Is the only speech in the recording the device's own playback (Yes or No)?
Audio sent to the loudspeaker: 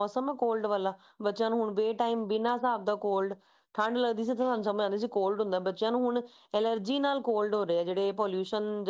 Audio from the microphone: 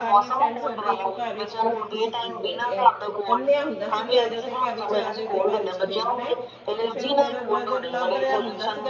No